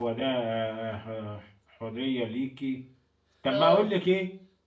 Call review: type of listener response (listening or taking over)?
listening